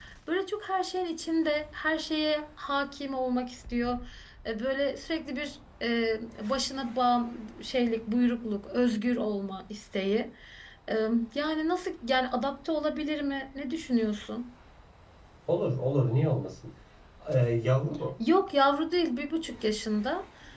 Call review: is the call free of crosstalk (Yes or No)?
Yes